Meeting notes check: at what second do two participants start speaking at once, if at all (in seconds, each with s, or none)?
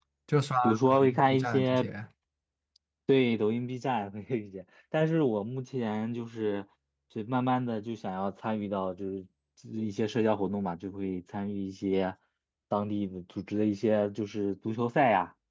0.6 s